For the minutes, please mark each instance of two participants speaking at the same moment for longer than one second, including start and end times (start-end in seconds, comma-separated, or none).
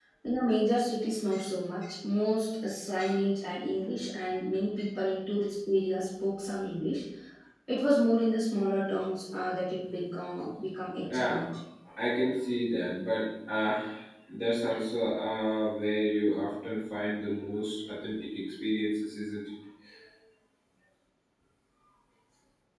none